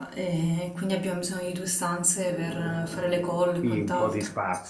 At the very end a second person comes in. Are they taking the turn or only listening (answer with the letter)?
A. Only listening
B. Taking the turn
B